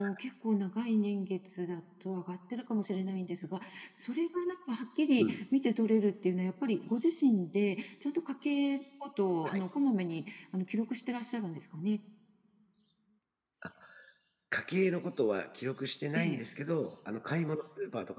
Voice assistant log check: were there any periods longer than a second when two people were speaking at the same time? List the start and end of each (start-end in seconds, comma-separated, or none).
none